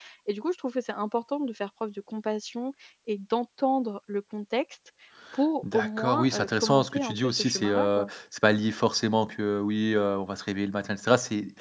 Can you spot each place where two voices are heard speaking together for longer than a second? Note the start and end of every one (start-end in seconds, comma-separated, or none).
5.7-8.1